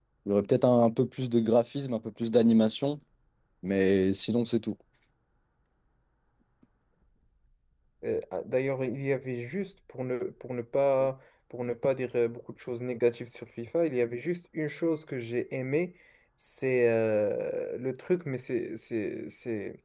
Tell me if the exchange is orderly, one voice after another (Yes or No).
Yes